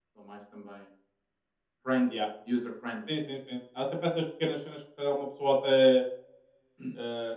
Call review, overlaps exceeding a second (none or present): none